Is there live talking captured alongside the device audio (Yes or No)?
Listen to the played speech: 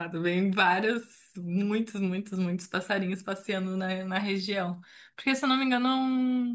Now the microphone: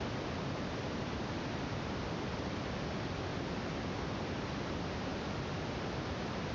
No